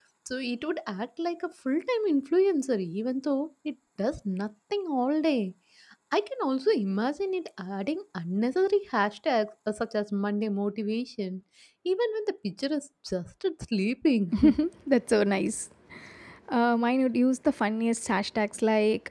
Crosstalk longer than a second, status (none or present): none